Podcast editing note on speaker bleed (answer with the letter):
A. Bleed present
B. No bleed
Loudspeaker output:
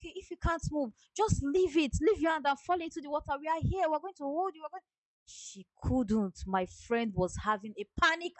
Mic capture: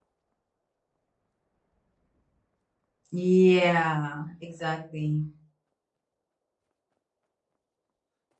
B